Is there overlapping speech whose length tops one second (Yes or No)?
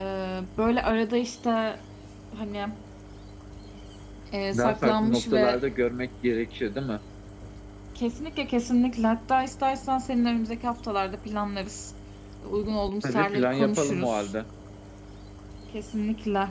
Yes